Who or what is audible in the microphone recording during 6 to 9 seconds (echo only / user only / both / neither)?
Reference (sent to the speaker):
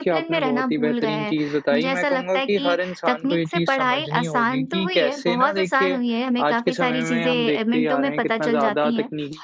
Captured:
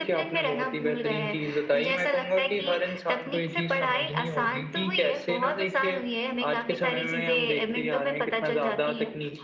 echo only